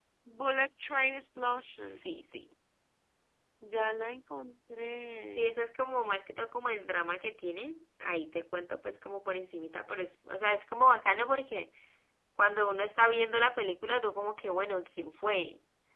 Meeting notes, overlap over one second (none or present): none